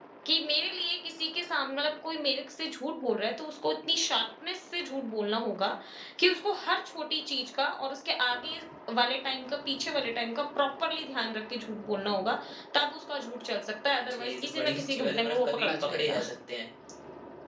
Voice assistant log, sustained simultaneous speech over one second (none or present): present